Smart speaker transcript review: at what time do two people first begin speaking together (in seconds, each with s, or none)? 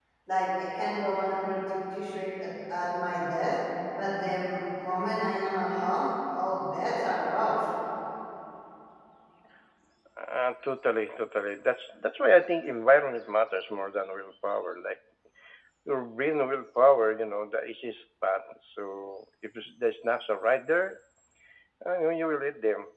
none